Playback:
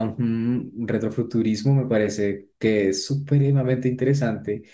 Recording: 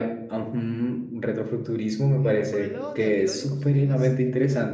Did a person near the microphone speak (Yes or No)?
Yes